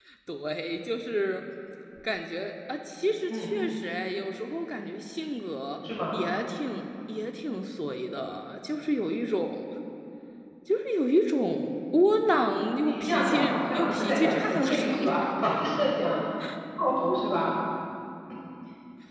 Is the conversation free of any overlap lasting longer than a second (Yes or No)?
No